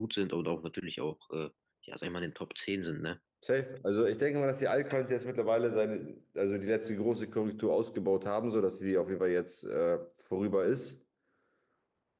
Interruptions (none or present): none